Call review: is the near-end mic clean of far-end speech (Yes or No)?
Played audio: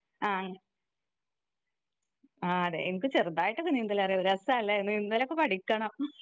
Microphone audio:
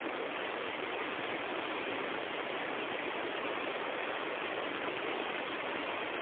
Yes